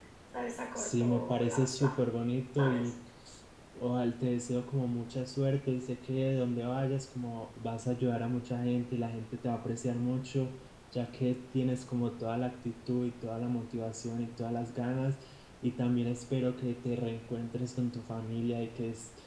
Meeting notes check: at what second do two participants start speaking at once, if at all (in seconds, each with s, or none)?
0.8 s